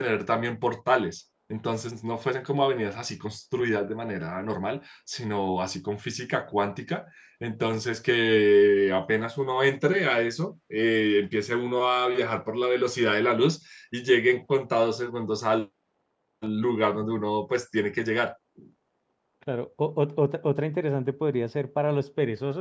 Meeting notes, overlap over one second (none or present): none